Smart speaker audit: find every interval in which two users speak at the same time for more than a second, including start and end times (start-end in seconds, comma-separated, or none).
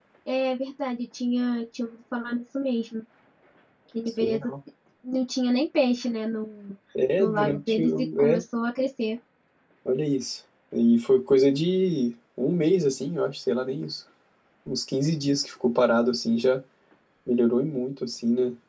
7.2-8.4